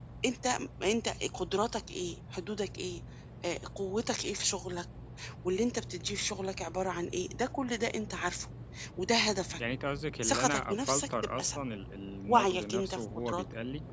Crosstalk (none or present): present